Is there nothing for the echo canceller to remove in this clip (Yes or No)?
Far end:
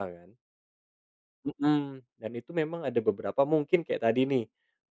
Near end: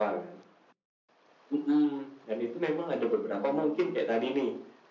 No